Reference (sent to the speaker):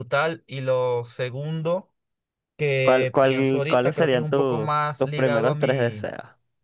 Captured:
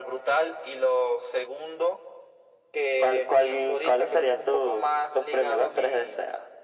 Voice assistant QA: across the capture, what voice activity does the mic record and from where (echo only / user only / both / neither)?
echo only